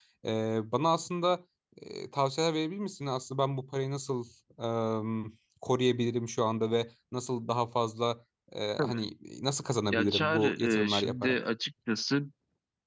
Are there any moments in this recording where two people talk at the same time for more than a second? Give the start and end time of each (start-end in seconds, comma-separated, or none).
9.9-11.4